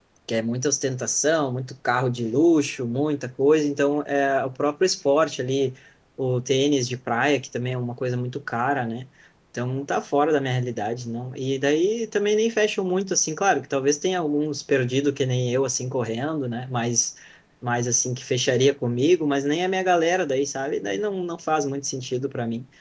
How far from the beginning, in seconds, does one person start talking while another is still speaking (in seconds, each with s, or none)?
none